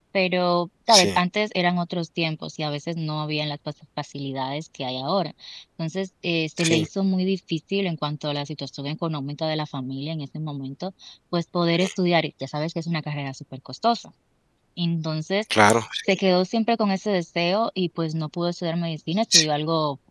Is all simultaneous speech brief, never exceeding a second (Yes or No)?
Yes